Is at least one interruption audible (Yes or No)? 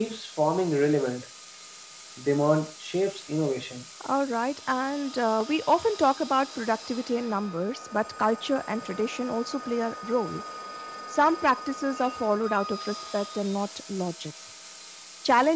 No